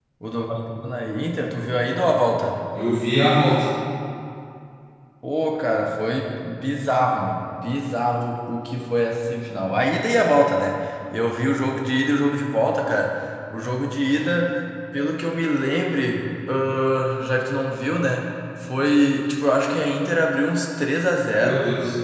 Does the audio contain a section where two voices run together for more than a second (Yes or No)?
No